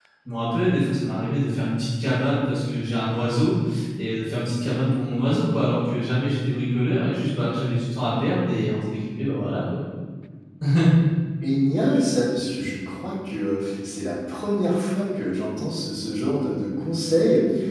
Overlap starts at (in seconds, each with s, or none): none